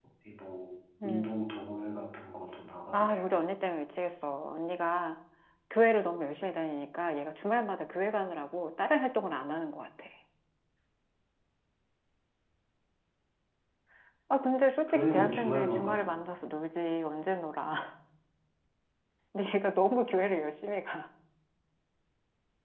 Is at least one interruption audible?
Yes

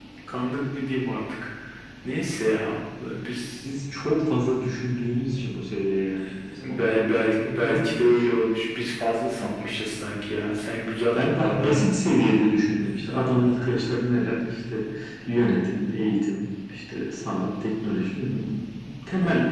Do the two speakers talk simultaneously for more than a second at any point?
Yes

